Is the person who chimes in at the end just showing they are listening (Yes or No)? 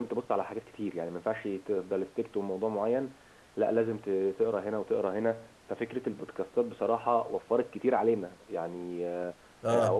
Yes